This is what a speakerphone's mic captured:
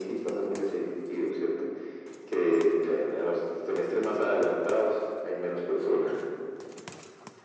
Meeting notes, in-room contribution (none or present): none